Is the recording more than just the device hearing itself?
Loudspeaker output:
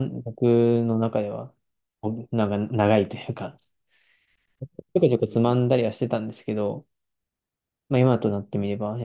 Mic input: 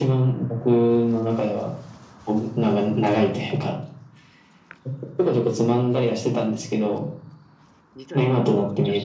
Yes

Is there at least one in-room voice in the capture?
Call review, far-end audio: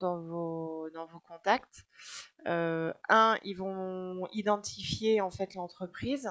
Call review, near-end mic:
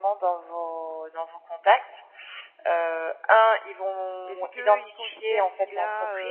Yes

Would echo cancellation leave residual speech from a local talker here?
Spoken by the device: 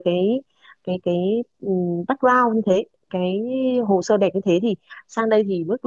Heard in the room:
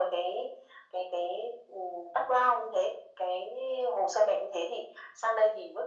No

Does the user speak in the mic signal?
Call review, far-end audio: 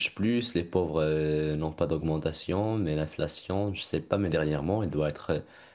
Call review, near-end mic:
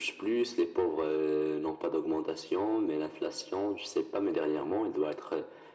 No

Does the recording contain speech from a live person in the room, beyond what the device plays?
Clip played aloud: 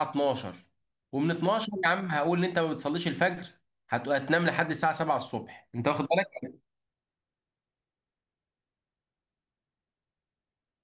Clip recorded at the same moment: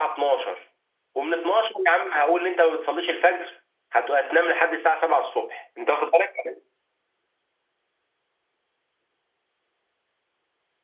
No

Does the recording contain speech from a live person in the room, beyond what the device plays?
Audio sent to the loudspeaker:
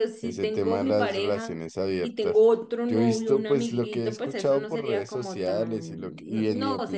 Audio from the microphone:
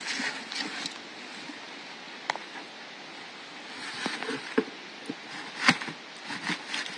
No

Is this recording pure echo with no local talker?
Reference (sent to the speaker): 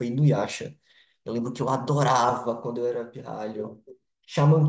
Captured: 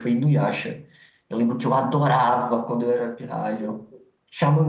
Yes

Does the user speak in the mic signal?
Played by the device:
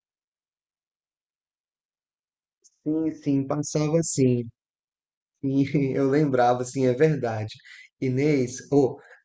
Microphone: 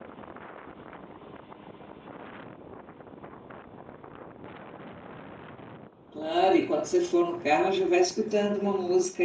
Yes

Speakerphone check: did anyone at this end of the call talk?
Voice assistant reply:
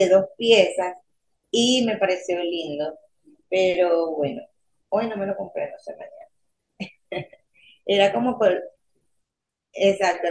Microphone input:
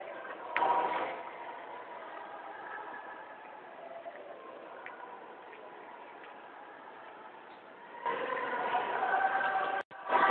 No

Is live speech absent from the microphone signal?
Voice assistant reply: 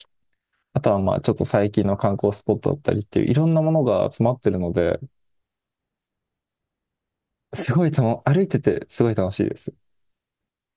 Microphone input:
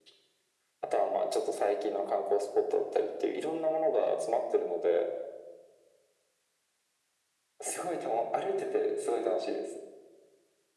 Yes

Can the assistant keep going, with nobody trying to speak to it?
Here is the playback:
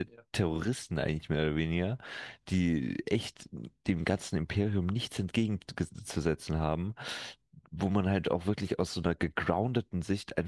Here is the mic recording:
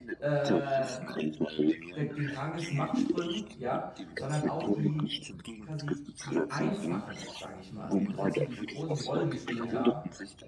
No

